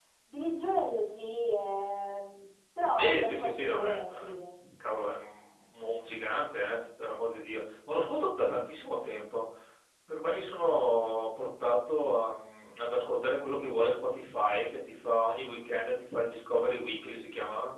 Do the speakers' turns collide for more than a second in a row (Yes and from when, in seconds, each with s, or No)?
Yes, from 3.0 s